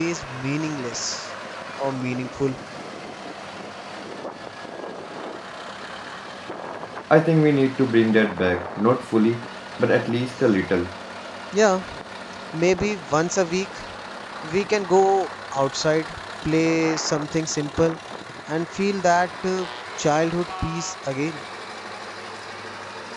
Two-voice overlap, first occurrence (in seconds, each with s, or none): none